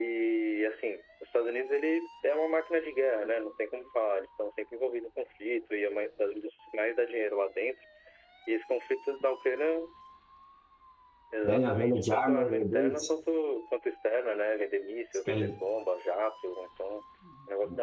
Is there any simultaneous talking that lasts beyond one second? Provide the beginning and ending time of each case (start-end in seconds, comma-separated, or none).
11.4-13.1